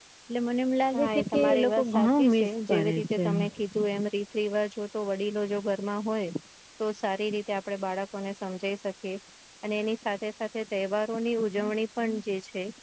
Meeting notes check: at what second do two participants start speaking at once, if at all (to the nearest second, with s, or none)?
1 s